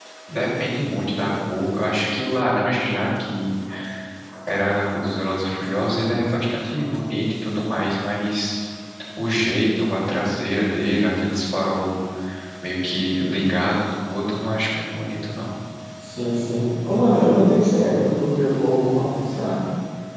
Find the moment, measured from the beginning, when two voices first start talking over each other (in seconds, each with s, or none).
none